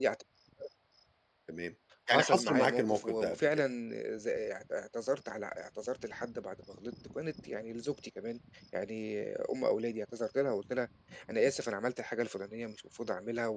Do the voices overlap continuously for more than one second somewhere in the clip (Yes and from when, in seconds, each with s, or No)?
Yes, from 2.1 s